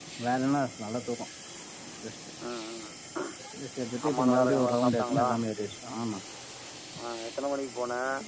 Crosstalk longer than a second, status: present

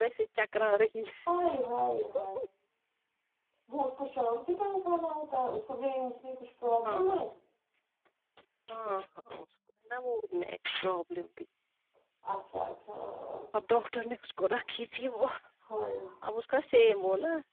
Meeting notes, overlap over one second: none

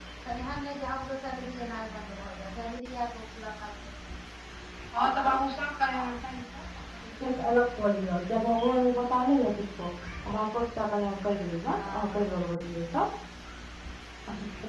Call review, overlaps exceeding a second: none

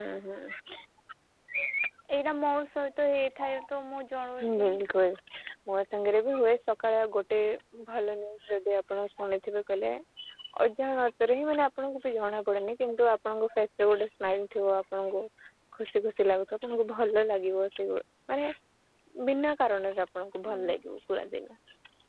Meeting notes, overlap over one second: none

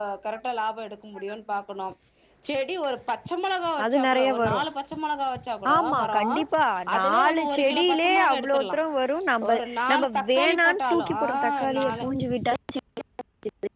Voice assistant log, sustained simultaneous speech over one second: present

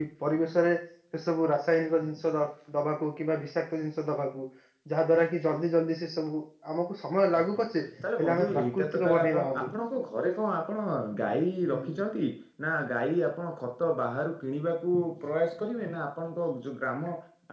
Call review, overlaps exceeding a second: present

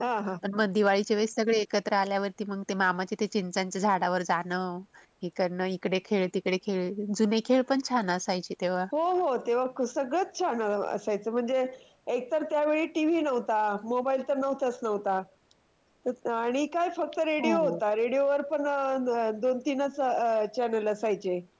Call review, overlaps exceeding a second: none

